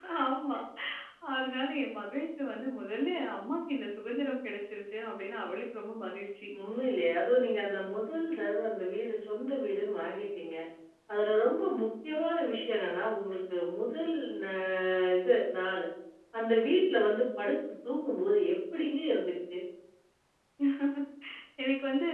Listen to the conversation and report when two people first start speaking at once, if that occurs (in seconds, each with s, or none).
none